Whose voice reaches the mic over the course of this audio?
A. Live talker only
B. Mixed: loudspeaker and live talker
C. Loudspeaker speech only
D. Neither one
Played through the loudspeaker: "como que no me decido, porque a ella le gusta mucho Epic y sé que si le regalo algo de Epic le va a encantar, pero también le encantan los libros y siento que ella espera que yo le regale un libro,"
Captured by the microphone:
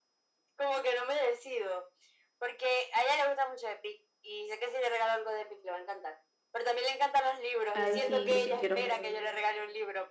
B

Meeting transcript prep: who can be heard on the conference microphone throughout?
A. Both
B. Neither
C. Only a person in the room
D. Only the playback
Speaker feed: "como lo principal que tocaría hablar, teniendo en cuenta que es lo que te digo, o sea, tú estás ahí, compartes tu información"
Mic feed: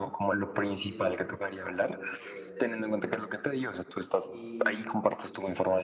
A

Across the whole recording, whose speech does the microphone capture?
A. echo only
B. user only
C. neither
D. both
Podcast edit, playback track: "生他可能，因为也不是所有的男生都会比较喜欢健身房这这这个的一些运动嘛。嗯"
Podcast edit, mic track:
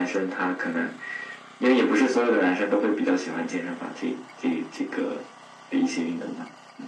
A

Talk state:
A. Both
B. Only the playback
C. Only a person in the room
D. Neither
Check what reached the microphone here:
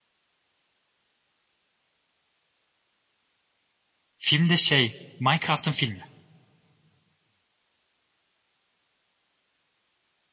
C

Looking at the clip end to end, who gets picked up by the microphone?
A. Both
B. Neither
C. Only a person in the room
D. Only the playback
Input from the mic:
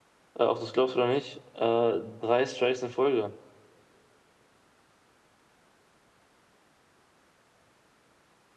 C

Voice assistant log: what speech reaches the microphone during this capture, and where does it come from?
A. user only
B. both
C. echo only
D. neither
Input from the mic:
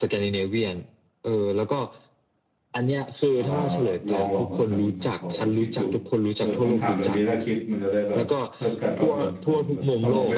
B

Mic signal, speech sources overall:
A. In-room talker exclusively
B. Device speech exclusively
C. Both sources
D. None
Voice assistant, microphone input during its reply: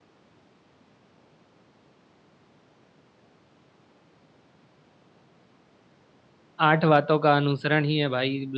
A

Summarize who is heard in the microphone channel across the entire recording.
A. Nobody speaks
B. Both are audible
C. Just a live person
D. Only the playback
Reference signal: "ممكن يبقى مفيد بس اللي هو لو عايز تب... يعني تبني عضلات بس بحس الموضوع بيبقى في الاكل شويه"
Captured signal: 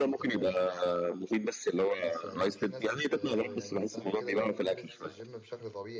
B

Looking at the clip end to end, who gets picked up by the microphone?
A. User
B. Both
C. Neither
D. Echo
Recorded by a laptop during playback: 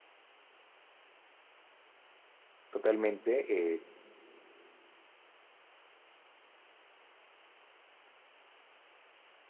A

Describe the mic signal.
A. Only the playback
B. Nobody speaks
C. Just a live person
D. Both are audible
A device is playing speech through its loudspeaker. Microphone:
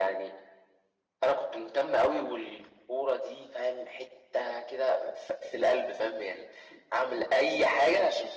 A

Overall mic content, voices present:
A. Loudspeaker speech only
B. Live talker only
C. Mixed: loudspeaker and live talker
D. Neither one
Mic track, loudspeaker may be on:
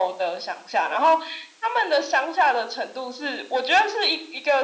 A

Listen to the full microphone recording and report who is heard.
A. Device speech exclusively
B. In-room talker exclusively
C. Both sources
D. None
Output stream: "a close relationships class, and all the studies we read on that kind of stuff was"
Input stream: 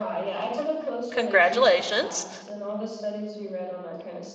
C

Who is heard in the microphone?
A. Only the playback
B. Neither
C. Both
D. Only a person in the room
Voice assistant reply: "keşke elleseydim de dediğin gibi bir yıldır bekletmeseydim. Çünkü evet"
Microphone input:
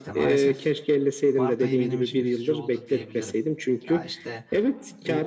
C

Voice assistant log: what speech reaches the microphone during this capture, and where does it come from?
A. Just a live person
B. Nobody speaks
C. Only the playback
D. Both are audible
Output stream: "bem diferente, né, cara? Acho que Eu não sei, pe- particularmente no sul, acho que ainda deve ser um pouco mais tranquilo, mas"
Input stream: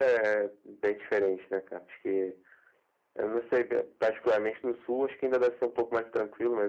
C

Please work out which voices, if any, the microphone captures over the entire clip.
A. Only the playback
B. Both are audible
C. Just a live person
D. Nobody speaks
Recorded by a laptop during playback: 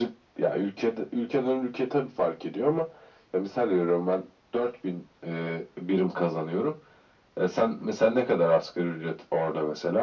A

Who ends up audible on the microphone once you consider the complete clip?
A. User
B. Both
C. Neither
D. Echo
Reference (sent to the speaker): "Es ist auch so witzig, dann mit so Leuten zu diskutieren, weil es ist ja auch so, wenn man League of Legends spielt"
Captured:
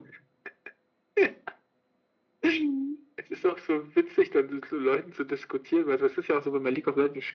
D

